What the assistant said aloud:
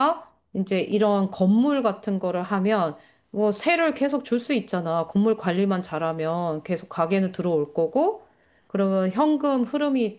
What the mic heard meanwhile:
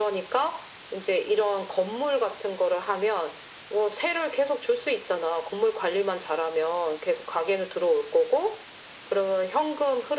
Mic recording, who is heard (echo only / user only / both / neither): echo only